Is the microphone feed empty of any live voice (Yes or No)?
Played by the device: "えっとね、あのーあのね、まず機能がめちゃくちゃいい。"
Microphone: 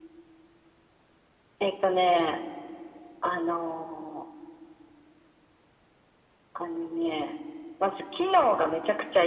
Yes